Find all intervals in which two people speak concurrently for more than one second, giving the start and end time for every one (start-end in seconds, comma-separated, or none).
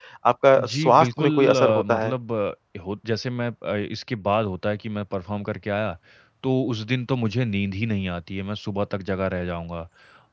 0.6-2.1